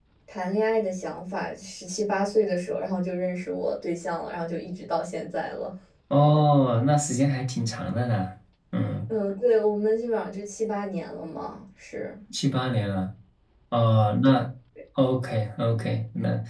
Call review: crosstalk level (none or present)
none